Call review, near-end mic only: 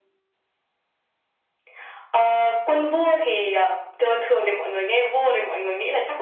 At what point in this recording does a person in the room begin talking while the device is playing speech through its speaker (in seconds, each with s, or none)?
none